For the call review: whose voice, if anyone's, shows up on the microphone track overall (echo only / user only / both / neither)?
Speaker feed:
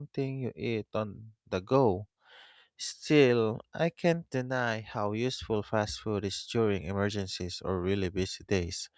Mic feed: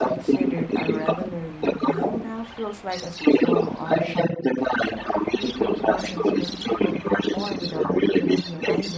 both